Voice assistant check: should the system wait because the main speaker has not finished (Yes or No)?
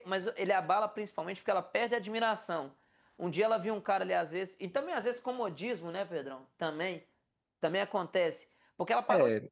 Yes